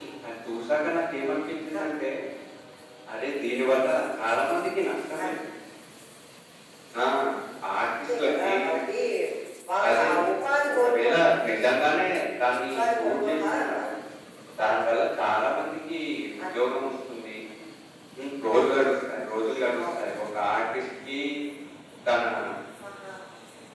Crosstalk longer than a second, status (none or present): present